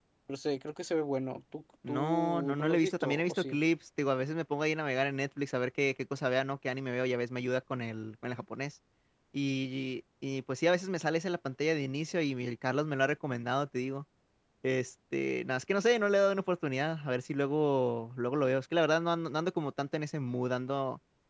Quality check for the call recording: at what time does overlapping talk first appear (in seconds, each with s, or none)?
1.8 s